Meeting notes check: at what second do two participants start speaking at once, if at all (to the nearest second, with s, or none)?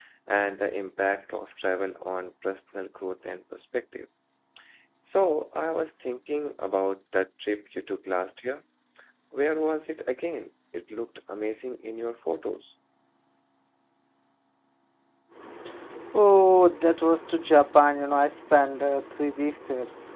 none